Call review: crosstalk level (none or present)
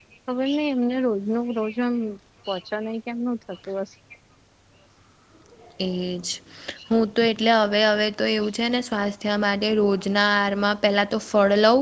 none